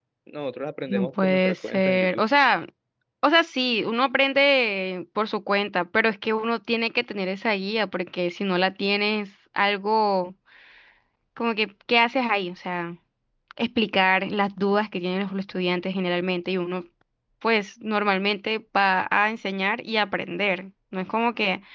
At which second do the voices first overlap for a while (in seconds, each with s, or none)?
0.9 s